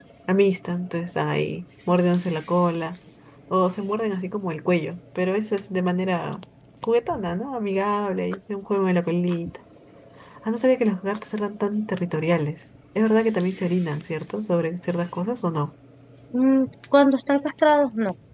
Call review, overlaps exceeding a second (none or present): none